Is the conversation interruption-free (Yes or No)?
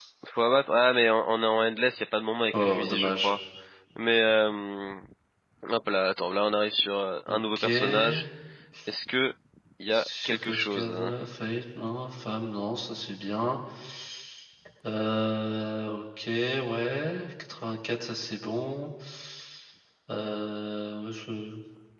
No